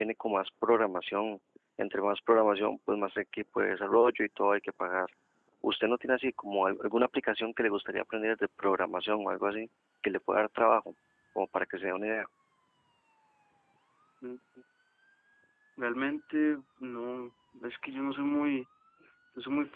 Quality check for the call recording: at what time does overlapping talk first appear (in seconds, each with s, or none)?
none